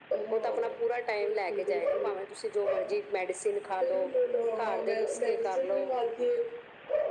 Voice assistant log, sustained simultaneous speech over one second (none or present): present